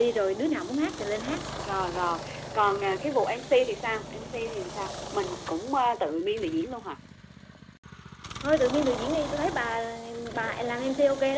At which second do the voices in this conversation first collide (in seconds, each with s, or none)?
none